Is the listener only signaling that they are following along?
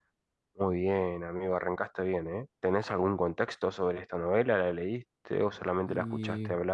No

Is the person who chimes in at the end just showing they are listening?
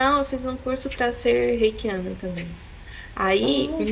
Yes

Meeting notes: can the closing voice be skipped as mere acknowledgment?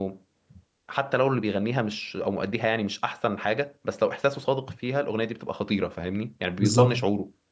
No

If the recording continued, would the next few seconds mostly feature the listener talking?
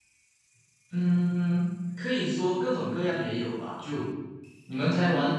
No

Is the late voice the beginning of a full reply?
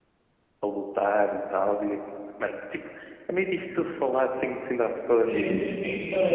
Yes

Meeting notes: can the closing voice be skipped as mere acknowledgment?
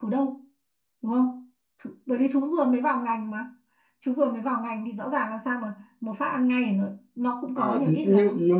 No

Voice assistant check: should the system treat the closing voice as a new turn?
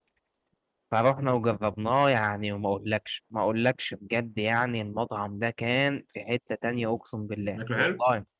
No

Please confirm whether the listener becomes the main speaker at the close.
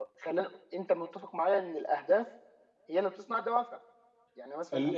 Yes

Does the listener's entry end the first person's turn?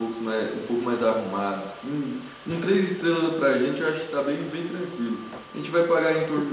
No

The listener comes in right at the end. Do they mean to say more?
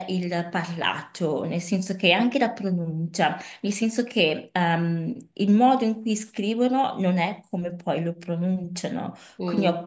No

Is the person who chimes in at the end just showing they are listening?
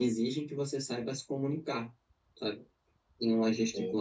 Yes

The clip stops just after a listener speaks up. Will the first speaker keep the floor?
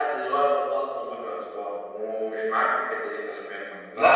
No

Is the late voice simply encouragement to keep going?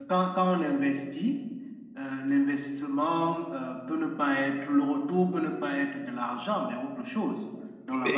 No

